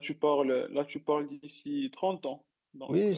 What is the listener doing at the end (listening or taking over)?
taking over